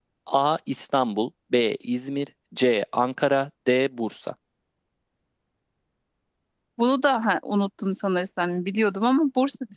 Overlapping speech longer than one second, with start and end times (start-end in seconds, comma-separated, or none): none